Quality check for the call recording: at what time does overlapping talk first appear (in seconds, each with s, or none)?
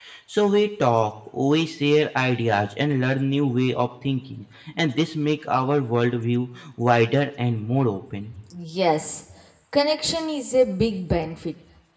none